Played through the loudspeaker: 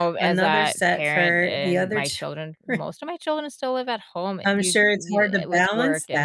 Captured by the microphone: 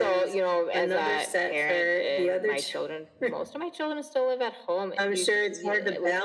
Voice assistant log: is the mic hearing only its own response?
Yes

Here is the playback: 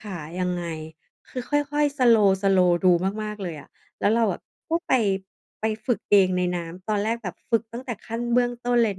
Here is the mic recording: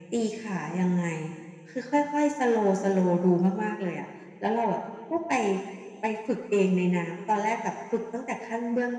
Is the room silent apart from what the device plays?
Yes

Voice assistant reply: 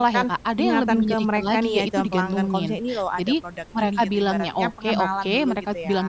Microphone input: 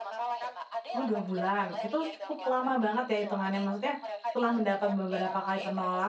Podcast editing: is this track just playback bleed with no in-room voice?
No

